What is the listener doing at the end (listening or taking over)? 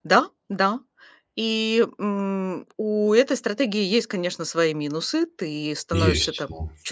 listening